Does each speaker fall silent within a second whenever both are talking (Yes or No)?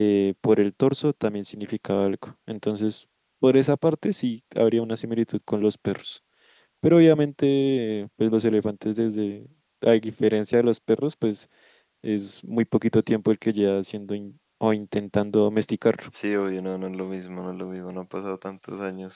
Yes